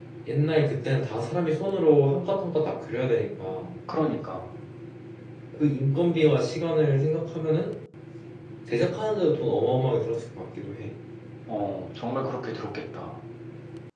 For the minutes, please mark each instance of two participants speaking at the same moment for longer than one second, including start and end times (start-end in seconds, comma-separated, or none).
none